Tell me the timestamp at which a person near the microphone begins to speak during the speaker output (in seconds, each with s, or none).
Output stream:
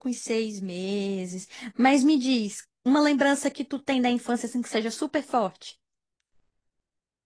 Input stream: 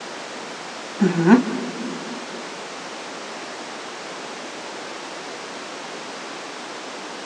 1.0 s